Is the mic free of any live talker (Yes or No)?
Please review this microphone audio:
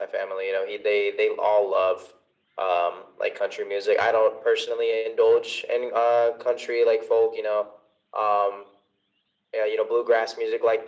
Yes